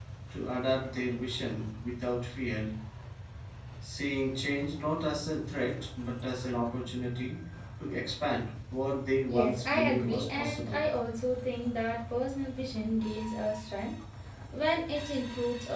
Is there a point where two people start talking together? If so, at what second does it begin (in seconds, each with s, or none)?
9.3 s